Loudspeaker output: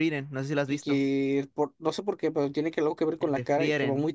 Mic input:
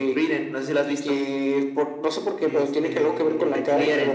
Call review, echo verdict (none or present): present